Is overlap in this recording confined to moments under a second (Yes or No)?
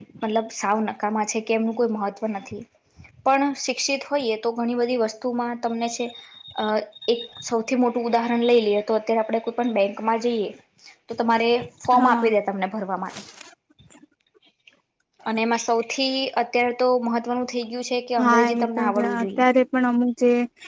No